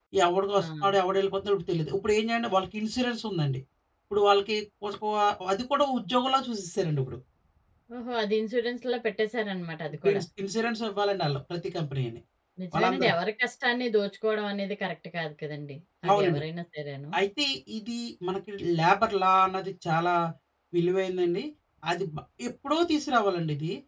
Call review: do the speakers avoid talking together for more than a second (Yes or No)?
Yes